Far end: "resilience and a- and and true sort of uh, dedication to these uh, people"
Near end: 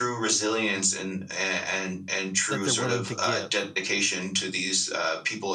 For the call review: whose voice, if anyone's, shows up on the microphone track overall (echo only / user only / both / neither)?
both